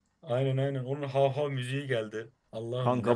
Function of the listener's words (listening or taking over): taking over